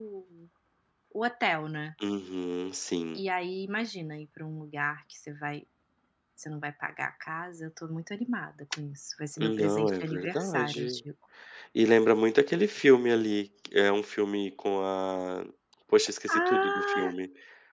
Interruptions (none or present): present